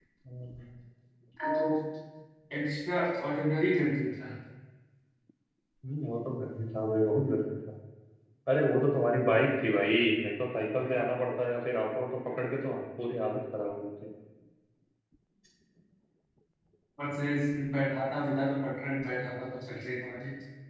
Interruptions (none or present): none